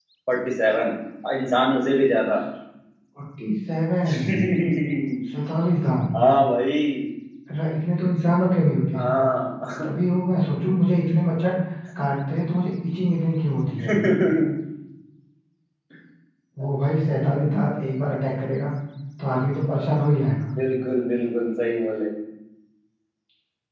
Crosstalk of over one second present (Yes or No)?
No